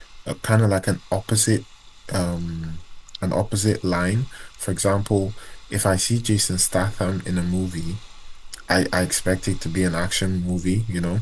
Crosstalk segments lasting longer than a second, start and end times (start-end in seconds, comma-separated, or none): none